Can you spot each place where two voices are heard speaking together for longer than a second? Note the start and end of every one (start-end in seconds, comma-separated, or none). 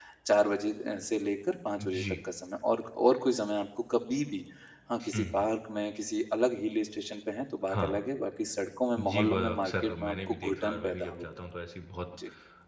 9.0-11.2